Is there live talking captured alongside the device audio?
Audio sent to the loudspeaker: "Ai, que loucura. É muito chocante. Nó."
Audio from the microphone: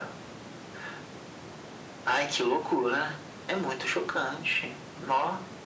No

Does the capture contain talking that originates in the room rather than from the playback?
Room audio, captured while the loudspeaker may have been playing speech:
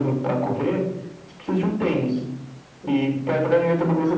No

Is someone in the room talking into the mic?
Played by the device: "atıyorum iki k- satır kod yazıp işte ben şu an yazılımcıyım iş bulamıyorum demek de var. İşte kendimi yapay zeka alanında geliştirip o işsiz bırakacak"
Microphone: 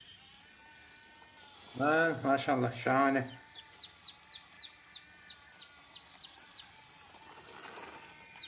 Yes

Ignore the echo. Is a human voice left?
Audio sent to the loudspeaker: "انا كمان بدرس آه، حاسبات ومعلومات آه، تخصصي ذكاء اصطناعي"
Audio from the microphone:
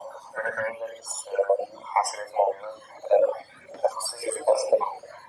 No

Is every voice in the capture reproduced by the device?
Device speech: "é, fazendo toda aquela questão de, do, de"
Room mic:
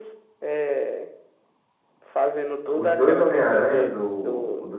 No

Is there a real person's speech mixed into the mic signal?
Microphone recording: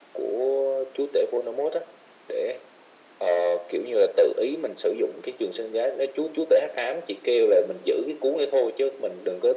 No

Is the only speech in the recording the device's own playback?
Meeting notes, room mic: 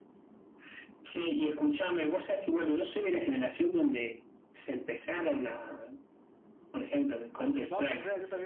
No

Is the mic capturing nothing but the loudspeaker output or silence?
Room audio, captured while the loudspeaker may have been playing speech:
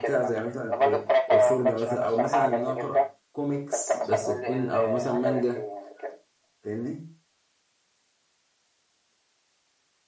No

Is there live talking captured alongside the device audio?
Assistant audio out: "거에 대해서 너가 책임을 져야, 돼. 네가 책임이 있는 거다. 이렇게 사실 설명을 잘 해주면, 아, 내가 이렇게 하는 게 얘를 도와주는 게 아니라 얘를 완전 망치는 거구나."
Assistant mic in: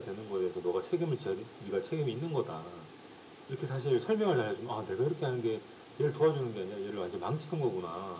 No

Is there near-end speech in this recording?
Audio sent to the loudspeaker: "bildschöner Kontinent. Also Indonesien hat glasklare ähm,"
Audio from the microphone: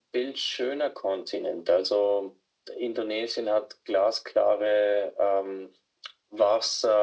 No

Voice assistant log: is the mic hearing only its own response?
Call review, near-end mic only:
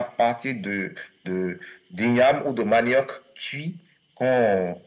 Yes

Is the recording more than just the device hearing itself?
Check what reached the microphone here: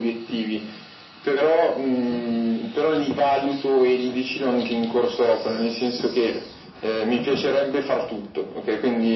No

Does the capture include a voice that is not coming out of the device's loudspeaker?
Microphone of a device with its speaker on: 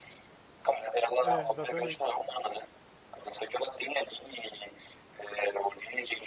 Yes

